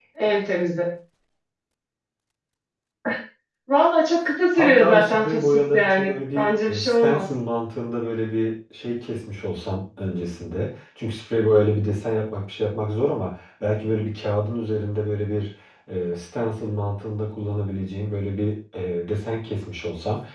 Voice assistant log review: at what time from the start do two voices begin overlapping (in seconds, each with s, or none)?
4.5 s